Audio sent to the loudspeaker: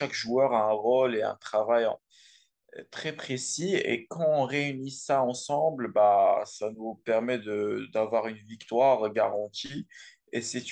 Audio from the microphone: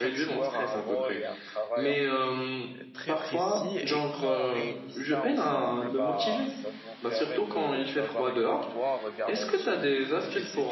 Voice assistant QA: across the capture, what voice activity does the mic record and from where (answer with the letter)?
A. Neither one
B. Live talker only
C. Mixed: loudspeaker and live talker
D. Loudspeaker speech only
C